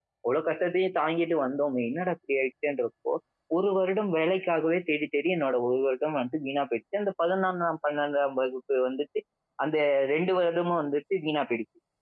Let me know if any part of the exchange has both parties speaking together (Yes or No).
No